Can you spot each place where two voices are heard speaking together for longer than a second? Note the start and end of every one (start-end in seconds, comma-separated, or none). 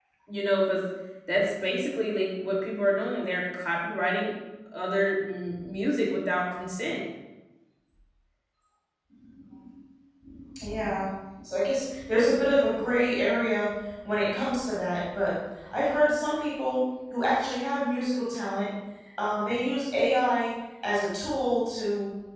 none